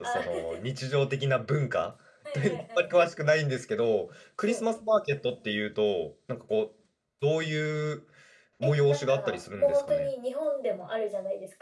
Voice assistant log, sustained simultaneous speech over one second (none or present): present